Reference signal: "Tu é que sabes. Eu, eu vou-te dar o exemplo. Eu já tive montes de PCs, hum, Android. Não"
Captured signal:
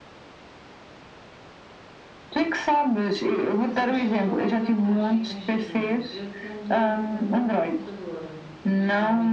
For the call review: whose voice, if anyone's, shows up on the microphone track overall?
both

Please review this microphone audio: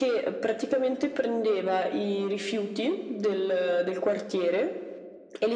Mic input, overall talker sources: echo only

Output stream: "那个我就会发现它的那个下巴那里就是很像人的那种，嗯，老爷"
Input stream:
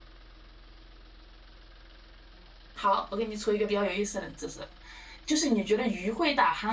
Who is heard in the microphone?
user only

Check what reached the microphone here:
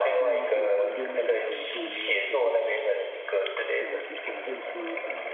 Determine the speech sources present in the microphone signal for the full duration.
both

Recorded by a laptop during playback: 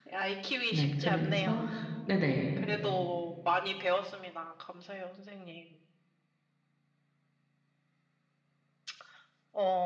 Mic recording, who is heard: both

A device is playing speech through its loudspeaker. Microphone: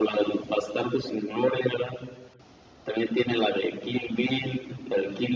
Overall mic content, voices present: echo only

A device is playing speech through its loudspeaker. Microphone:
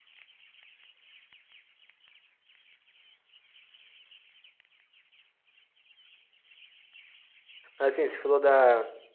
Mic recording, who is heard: user only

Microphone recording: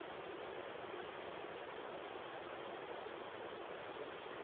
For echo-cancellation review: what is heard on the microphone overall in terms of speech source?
neither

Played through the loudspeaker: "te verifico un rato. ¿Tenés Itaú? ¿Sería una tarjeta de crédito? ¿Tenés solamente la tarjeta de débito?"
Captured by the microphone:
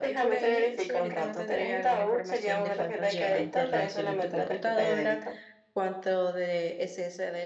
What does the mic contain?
both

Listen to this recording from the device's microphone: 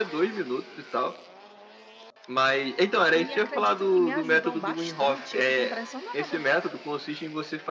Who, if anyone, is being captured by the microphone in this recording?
both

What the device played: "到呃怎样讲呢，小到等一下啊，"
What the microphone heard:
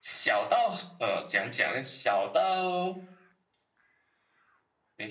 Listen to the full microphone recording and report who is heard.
echo only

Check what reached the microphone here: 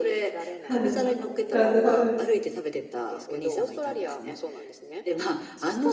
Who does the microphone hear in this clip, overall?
both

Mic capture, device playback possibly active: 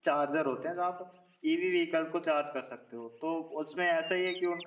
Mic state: user only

